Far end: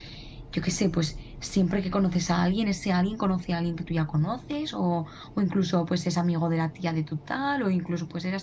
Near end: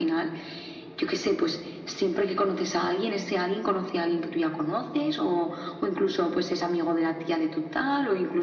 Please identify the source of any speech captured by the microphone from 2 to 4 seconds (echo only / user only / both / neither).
echo only